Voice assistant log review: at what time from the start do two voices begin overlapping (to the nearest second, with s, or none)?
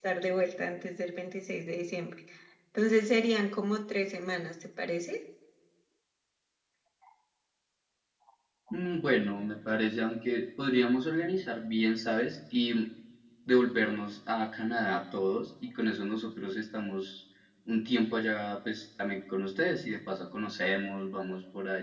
none